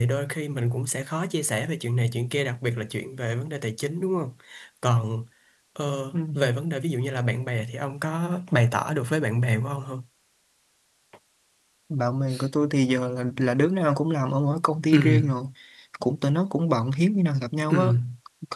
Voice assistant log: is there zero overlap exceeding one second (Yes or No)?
Yes